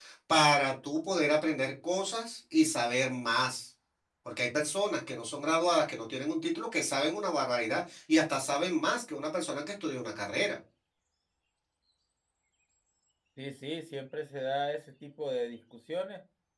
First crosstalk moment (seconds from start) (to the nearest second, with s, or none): none